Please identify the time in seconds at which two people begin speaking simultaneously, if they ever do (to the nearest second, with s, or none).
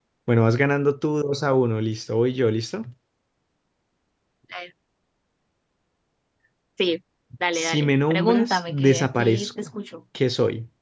8 s